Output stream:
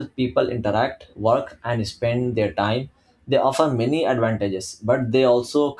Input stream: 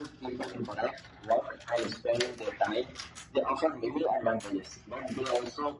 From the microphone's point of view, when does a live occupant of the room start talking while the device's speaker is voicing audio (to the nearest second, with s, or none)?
none